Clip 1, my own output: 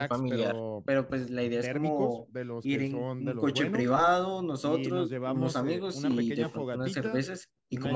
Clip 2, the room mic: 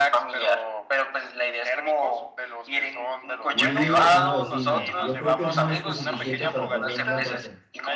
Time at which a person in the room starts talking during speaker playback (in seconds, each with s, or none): 3.5 s